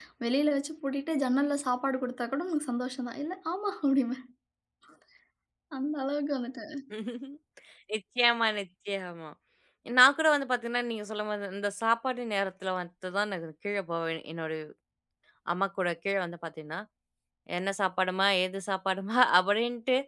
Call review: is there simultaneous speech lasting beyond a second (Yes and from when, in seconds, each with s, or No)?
No